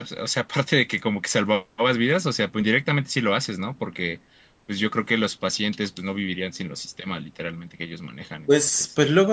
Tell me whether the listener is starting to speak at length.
Yes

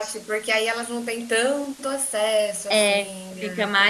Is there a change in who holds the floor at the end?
Yes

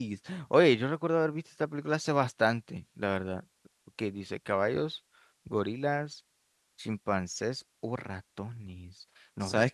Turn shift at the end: Yes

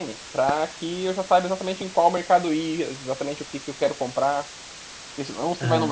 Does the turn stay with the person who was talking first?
Yes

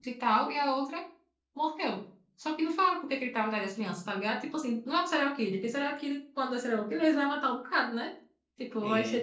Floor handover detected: Yes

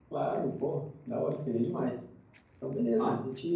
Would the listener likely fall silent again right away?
Yes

